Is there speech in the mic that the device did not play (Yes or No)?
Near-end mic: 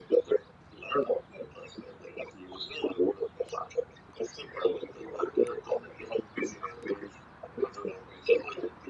No